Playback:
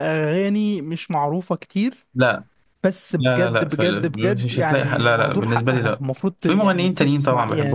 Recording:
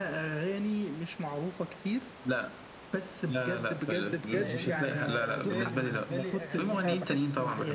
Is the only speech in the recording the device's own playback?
No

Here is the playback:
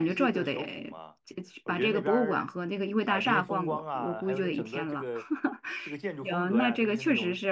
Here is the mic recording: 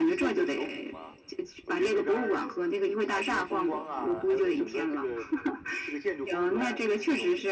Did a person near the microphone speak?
No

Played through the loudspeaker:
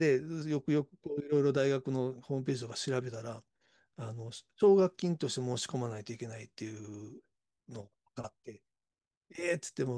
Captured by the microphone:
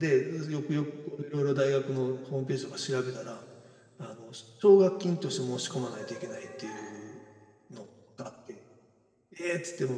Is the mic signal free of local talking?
No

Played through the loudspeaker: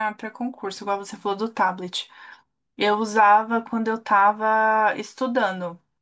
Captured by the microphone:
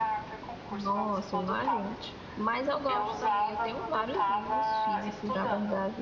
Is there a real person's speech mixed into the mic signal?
Yes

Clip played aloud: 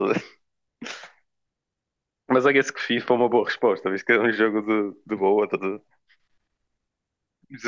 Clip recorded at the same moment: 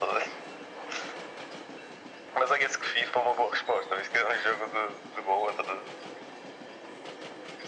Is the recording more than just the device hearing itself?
No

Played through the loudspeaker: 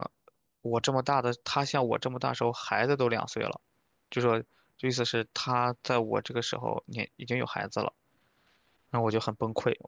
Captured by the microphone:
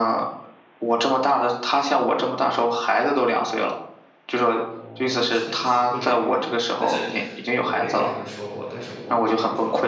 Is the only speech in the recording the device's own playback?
No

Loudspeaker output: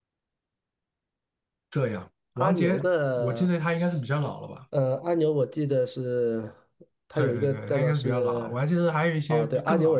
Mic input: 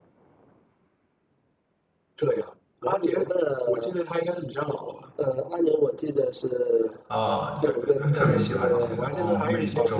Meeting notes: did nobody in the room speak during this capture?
No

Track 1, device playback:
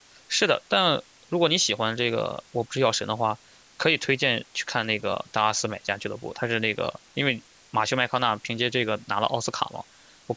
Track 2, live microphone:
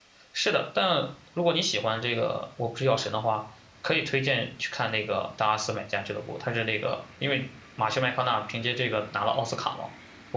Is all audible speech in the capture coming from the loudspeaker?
Yes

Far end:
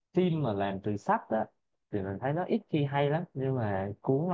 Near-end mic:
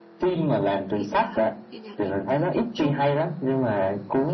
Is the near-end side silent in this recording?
No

